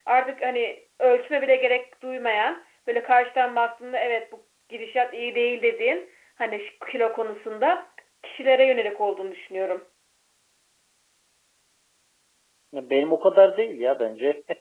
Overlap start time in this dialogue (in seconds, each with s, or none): none